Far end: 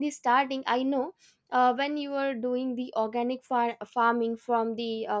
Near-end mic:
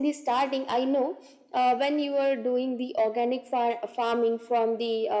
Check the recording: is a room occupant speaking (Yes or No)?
No